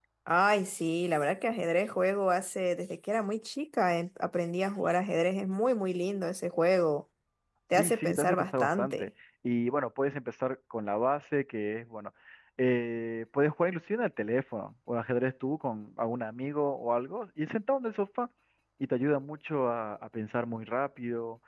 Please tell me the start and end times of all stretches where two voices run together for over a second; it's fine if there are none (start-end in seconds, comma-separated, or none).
7.7-9.1